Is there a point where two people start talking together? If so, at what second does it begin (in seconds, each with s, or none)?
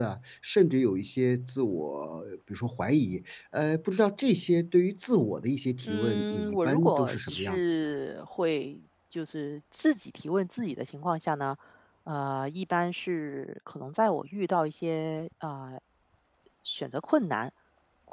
5.8 s